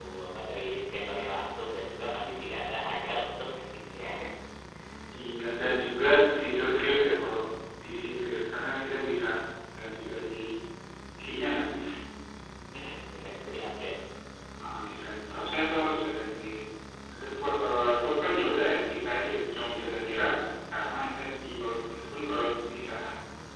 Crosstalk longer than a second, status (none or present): none